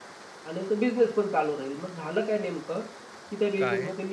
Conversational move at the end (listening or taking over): listening